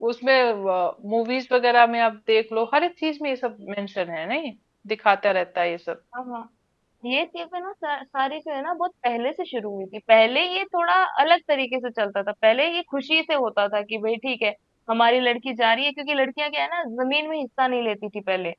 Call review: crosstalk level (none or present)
none